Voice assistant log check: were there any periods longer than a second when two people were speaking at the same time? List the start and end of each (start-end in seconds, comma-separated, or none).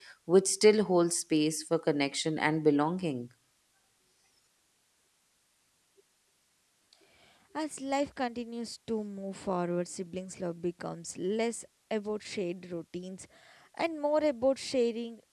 none